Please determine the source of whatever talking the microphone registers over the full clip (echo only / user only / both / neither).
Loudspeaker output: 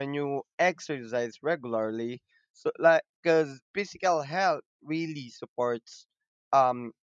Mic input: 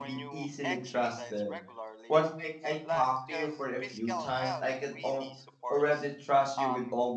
both